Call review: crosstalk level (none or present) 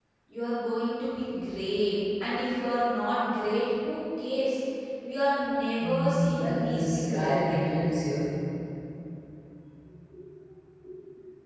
present